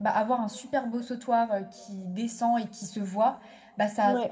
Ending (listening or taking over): listening